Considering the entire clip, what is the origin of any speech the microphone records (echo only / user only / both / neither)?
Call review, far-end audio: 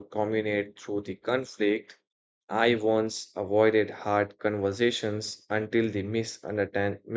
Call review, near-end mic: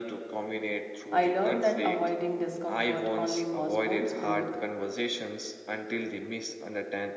both